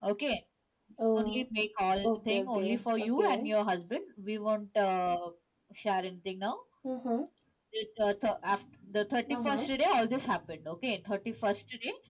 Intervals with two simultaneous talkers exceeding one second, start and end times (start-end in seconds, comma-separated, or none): 2.0-3.5